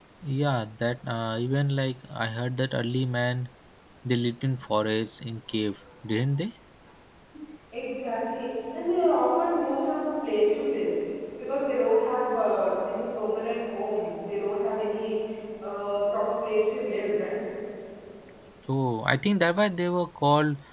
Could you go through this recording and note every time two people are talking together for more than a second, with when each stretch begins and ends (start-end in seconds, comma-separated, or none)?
none